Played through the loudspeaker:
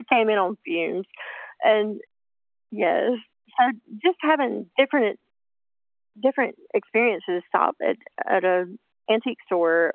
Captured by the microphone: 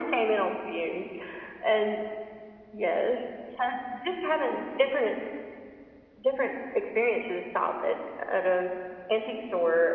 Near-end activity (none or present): none